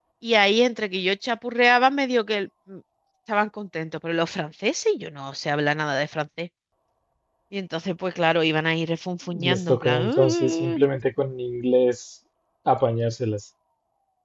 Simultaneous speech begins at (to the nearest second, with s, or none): 9 s